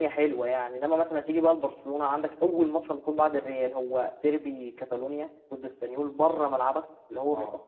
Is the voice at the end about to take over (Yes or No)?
No